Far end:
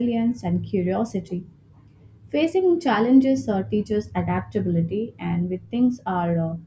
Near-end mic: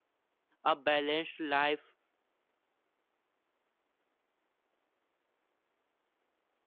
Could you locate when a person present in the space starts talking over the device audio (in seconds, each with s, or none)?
0.6 s